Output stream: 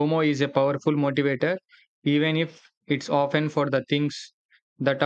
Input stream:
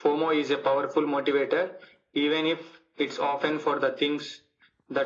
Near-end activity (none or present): none